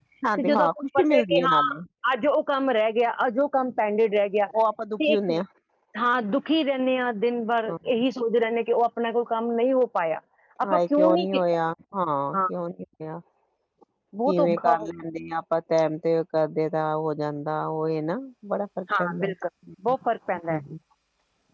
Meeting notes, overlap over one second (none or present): present